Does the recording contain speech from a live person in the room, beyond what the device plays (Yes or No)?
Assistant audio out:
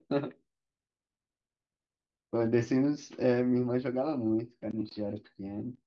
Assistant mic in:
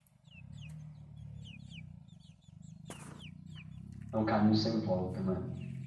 Yes